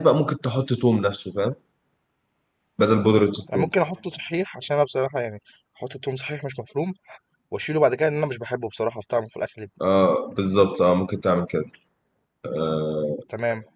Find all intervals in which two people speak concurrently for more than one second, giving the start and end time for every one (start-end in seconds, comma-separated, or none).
none